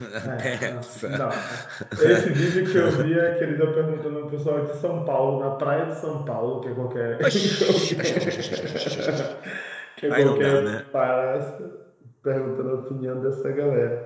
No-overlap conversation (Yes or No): No